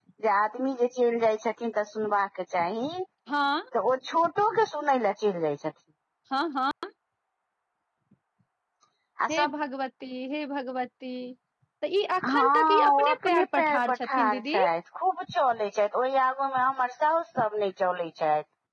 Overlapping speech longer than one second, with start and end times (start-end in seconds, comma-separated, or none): 12.3-14.6